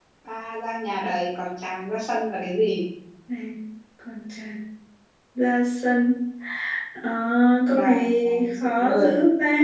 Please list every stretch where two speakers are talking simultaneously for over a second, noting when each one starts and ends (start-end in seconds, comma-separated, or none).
7.7-9.1